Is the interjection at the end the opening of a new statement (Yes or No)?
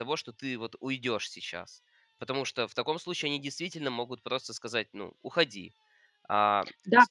Yes